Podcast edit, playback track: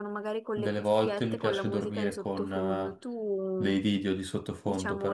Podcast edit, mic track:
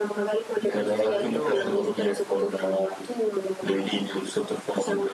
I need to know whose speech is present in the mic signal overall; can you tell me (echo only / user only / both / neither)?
both